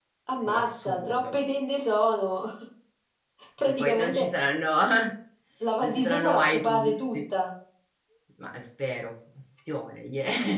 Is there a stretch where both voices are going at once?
Yes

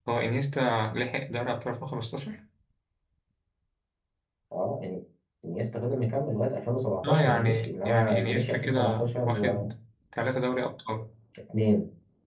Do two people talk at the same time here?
Yes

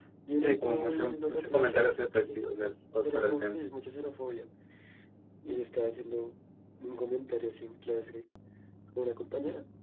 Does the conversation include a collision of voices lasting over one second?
Yes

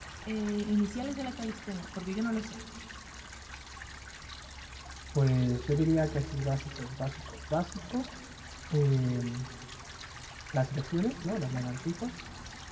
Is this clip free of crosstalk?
Yes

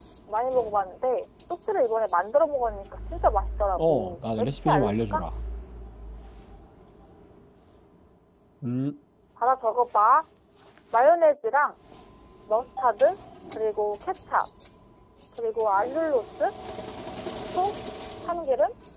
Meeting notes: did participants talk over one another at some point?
Yes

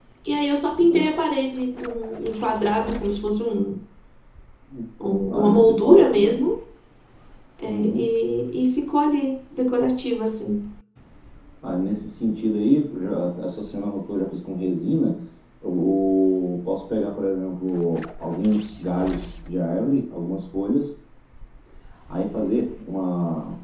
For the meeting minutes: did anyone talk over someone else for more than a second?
Yes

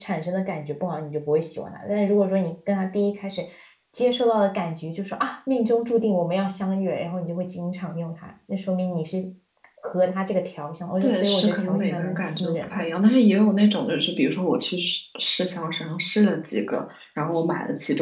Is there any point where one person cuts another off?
Yes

